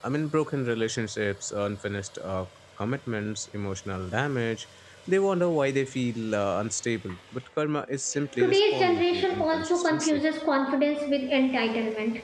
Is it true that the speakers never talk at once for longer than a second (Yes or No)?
No